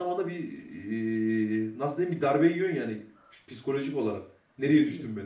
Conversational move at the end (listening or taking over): taking over